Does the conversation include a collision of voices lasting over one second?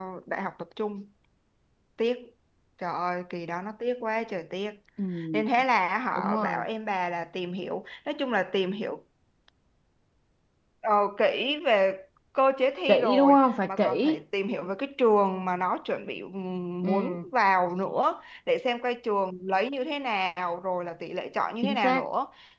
Yes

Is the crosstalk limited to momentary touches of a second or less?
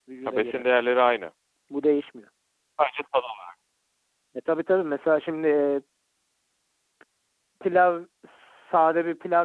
Yes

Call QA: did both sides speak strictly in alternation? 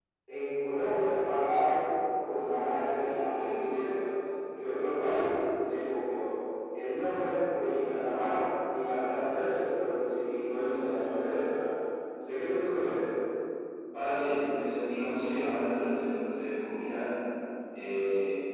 Yes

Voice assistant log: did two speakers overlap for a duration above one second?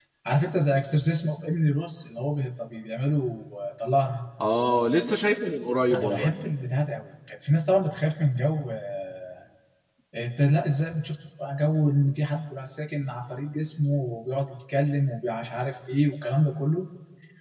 No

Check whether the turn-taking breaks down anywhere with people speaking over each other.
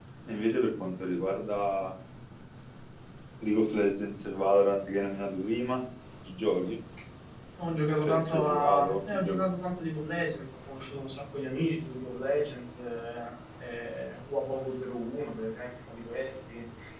Yes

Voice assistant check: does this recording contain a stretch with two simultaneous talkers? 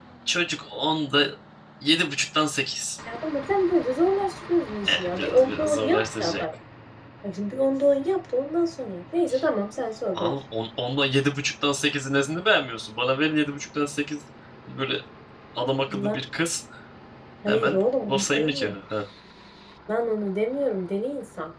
Yes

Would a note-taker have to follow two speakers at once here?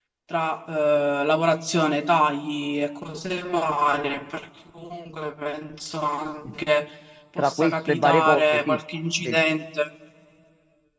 Yes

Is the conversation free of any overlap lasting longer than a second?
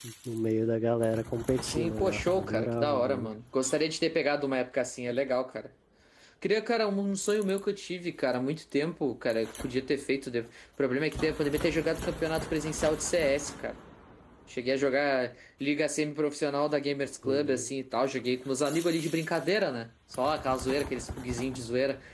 No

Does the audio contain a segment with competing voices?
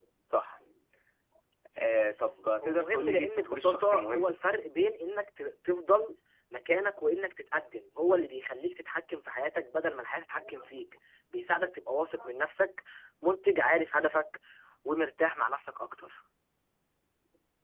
Yes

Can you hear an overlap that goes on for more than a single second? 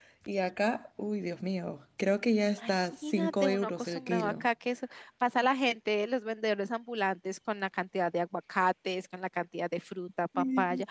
Yes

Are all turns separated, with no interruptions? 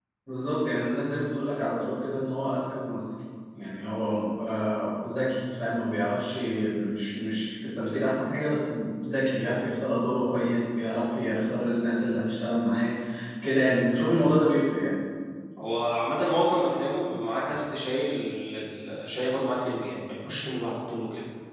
Yes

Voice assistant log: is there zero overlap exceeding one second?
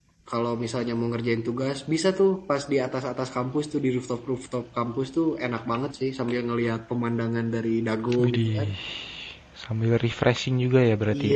Yes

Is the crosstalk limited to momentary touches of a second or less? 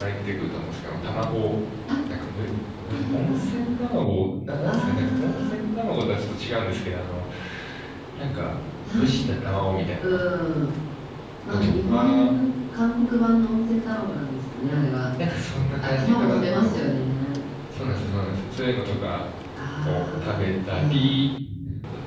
No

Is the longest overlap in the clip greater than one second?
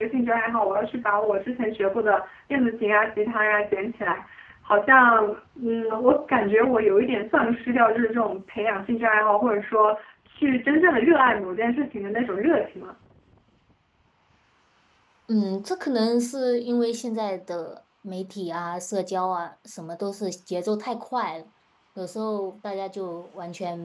No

